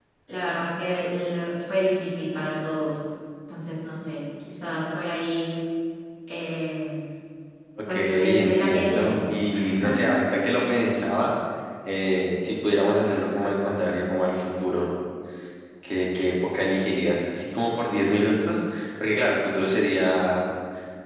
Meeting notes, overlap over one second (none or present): present